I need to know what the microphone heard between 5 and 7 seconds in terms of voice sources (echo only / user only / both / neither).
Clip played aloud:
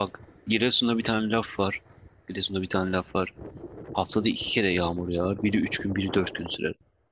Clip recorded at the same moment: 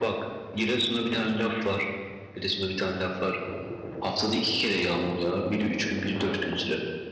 echo only